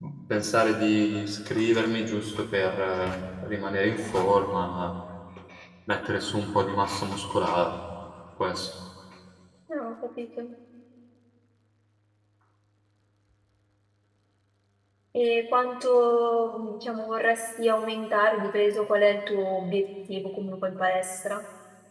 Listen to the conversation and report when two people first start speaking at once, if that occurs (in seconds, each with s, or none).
none